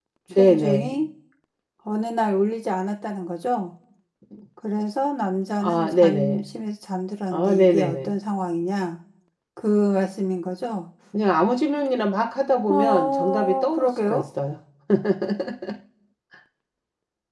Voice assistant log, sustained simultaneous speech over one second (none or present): present